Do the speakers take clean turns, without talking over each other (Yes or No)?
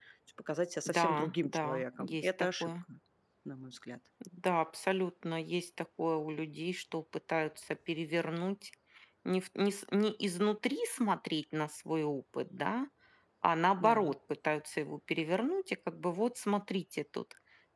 No